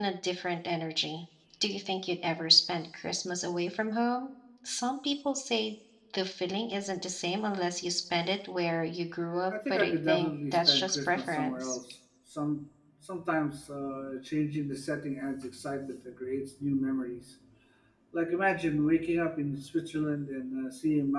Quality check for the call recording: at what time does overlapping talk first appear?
9.5 s

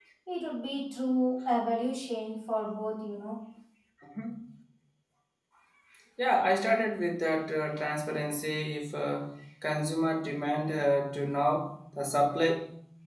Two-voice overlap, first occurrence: none

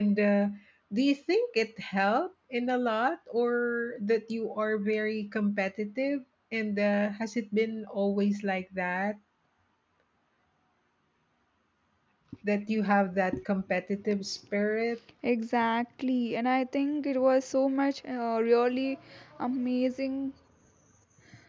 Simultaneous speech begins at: none

